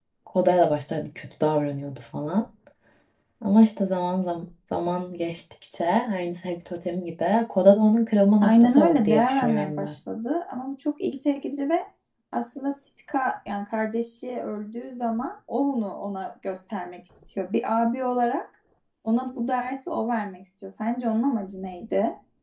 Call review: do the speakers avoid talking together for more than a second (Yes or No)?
No